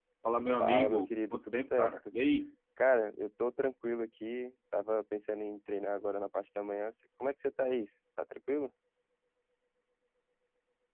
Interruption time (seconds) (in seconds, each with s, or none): 0.5 s